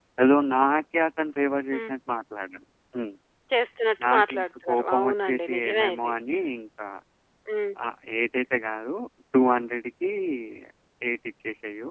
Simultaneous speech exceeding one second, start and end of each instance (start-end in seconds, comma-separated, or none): 4.0-6.1